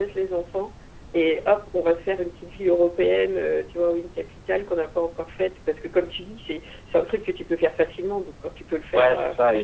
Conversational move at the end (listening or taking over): taking over